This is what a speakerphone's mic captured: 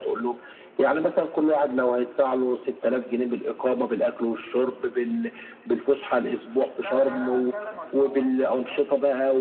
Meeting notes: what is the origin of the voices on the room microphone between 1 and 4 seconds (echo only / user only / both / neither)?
echo only